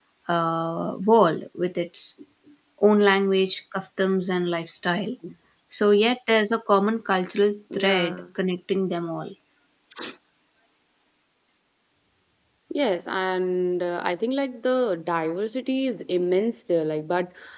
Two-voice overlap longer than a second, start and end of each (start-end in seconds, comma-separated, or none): none